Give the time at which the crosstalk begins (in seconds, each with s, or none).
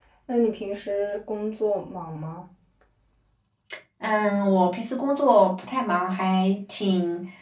none